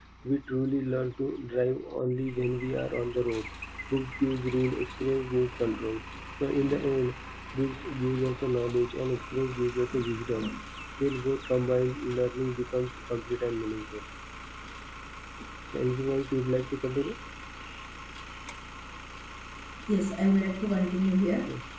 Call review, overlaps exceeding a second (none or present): none